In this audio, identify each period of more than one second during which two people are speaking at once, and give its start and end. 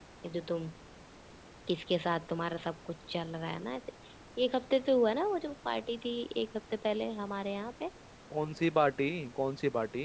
none

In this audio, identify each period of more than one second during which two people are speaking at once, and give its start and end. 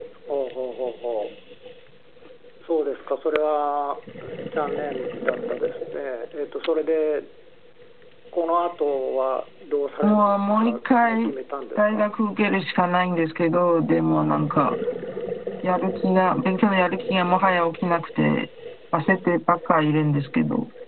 10.0-11.3

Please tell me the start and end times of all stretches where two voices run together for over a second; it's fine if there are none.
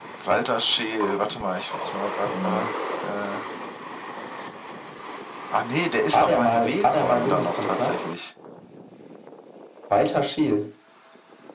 6.1-8.0

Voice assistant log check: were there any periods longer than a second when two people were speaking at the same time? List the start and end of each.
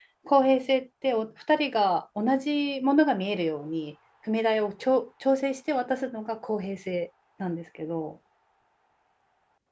none

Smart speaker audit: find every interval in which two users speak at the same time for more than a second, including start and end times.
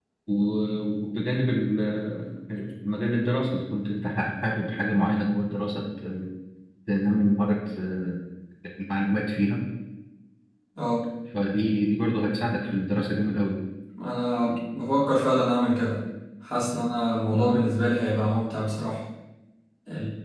none

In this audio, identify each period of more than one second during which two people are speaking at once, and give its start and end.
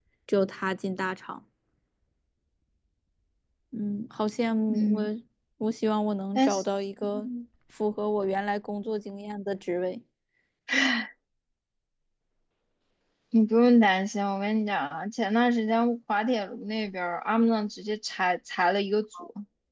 none

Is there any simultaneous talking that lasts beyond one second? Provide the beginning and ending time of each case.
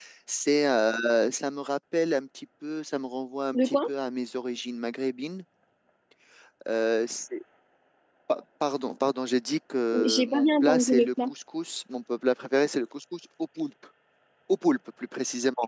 10.0-11.3

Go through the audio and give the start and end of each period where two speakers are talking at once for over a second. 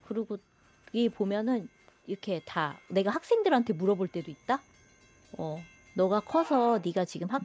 none

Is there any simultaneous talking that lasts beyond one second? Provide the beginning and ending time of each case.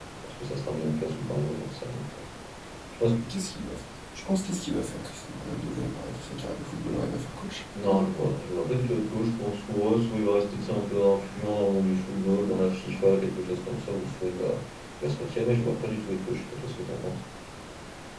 none

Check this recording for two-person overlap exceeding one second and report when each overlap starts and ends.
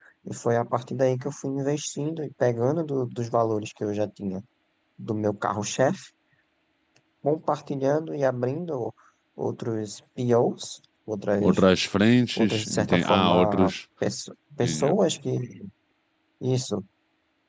12.4-13.7

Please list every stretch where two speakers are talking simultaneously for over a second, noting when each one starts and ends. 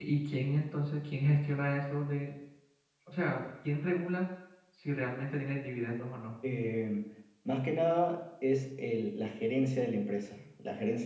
none

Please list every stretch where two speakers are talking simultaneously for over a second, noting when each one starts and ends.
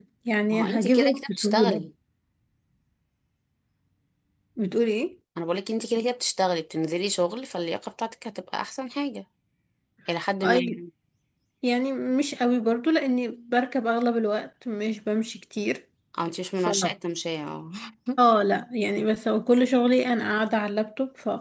0.5-1.8

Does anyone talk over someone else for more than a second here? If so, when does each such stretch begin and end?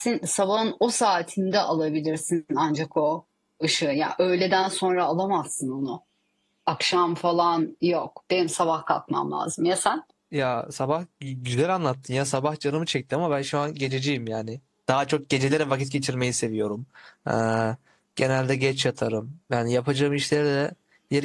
none

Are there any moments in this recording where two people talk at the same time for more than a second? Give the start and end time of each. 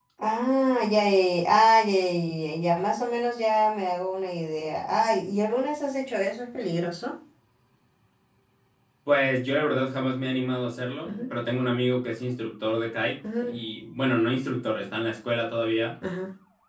none

